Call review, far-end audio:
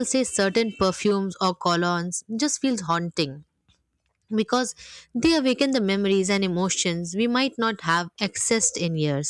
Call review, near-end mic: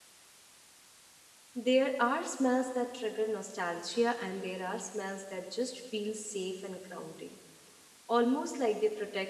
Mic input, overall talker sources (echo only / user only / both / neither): user only